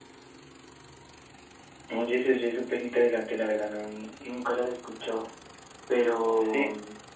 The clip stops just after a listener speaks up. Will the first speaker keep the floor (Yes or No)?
Yes